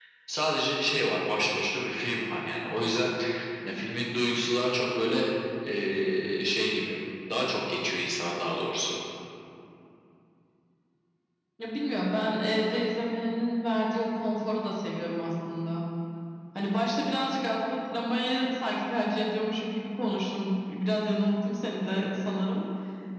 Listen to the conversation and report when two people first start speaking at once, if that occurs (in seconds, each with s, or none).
none